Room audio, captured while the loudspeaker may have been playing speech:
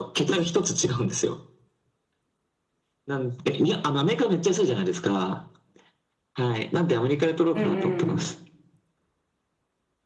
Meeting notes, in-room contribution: present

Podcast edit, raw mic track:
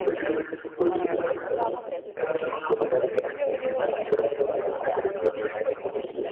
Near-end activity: present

